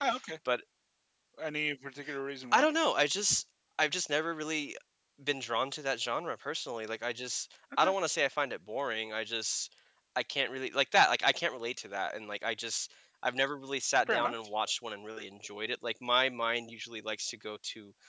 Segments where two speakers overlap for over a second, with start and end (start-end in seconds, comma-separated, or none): none